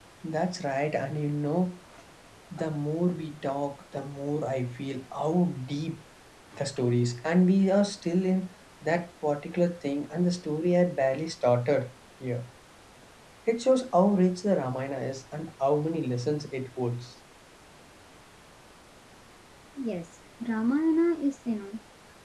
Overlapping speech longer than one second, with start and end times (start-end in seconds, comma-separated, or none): none